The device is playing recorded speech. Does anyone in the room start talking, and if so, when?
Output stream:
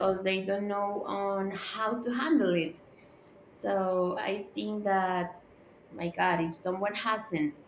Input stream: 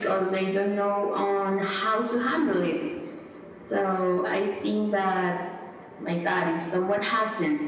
none

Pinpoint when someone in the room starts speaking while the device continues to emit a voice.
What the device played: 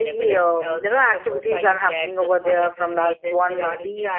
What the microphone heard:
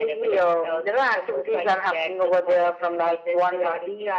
none

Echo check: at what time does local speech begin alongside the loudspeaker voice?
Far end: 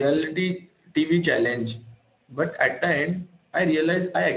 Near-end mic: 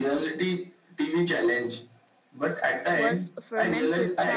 3 s

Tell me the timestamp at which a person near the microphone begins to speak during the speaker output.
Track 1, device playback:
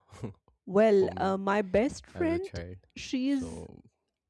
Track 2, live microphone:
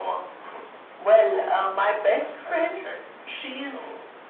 none

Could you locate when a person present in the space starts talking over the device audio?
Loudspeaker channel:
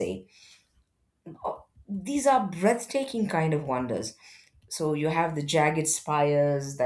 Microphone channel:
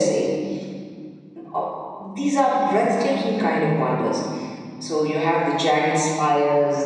none

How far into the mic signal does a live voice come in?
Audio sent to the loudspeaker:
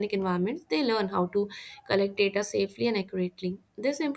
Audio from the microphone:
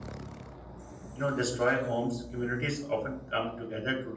1 s

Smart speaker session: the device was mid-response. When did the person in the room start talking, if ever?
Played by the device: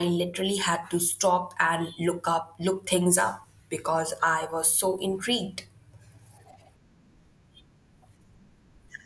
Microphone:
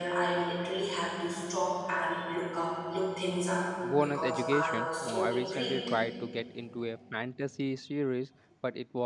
4 s

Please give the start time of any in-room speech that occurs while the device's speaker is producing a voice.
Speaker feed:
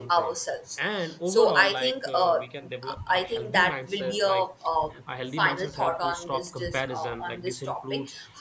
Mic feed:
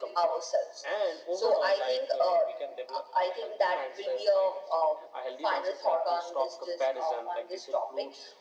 none

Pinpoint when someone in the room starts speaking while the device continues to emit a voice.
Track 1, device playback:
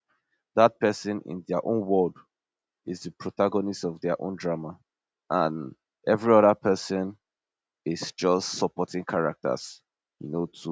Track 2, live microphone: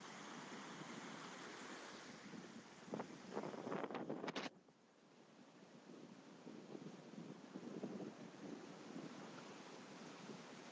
none

